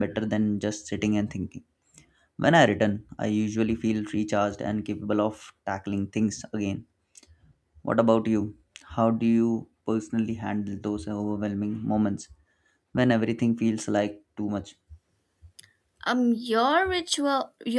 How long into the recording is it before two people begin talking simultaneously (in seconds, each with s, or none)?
none